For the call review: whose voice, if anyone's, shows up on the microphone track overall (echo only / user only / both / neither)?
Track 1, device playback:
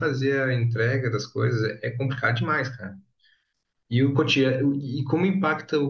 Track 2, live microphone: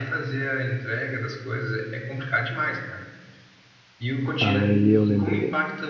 both